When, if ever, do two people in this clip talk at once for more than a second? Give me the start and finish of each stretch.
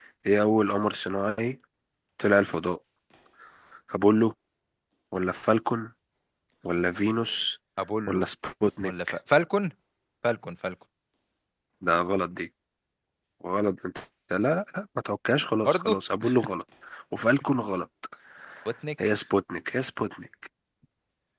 none

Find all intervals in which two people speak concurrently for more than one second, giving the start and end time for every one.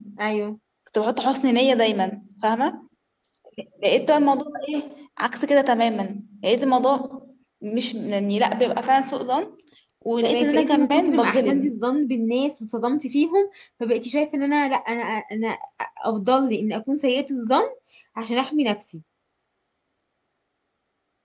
10.2-11.8

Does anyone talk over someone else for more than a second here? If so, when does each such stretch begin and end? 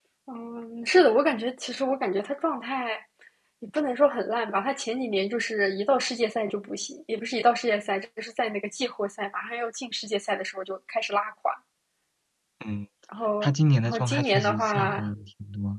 13.8-15.1

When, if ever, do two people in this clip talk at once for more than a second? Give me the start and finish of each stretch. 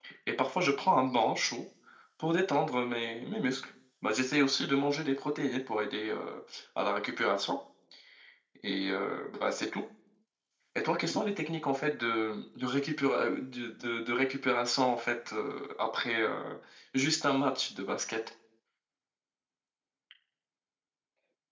none

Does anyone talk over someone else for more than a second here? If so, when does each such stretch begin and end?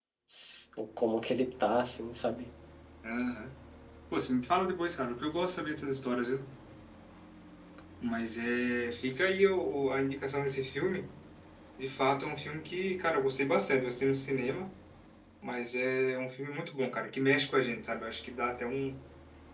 none

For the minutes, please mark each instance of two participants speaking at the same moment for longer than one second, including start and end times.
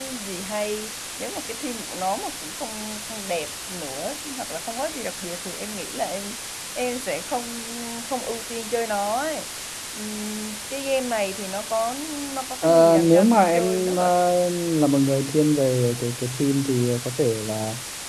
12.6-14.1

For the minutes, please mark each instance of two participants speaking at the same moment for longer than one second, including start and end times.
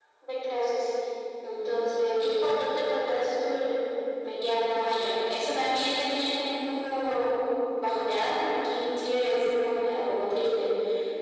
none

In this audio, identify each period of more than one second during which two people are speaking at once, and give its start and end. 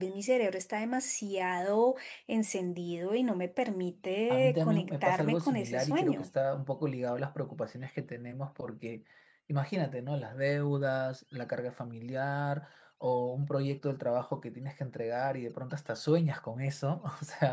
4.3-6.3

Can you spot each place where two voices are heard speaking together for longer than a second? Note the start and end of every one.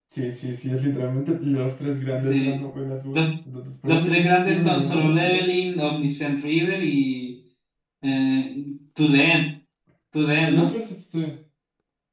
3.9-5.4

